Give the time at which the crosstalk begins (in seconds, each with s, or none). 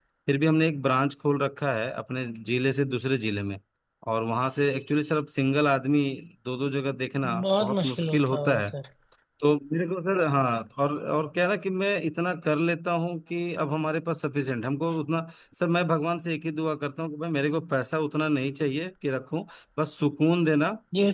7.2 s